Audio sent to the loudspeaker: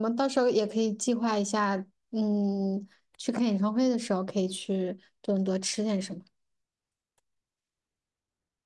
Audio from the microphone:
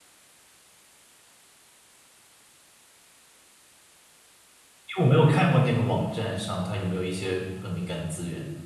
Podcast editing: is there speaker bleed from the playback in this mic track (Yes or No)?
No